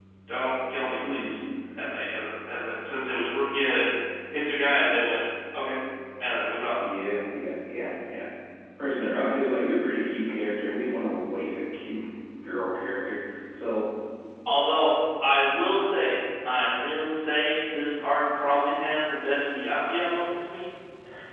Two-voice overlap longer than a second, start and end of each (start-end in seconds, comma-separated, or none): none